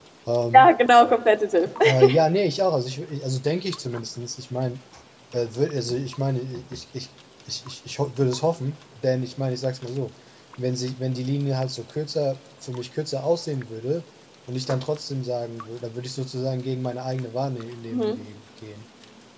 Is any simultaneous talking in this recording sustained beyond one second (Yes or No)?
No